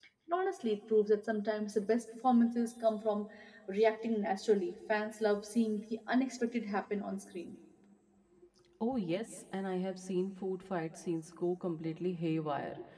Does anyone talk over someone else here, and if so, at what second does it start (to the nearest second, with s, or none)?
none